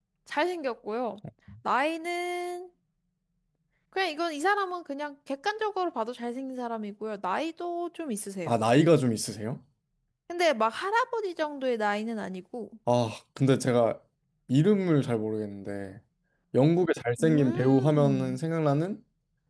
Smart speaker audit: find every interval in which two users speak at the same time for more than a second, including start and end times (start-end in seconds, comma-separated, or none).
17.2-18.4